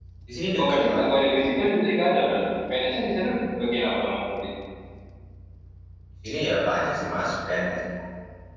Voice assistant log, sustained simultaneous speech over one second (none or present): none